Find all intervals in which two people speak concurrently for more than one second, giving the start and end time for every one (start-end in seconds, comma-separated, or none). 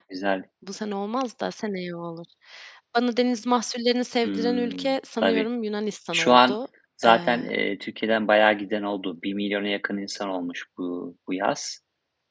4.2-5.4